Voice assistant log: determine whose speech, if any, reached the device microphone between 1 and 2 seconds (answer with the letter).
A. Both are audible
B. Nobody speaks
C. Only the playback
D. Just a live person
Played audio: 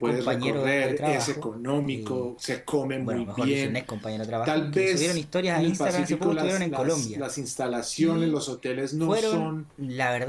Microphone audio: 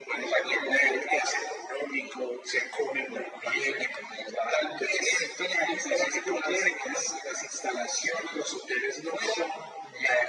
C